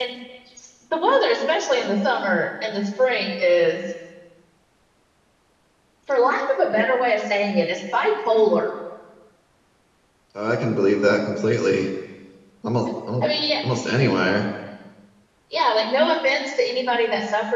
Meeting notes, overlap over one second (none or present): none